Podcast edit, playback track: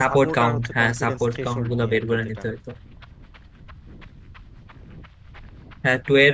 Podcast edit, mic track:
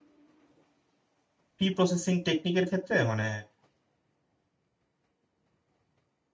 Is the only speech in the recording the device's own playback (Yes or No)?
No